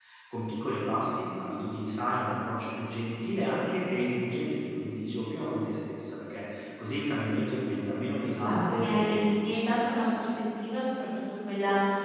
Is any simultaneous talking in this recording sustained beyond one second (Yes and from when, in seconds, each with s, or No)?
Yes, from 8.4 s